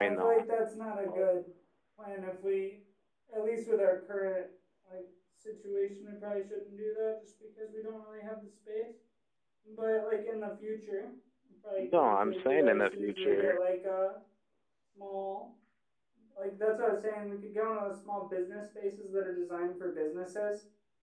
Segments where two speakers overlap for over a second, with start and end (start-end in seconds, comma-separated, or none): 11.8-13.6